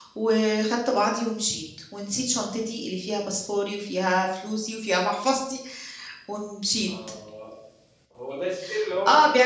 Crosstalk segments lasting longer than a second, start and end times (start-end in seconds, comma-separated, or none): none